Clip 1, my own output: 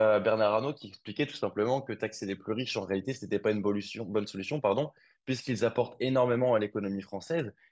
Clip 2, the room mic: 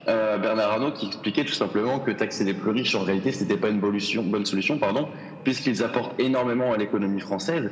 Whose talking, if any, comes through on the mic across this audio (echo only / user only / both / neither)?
echo only